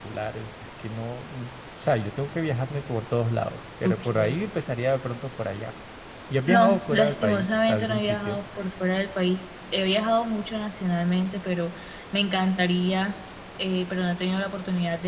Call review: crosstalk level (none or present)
present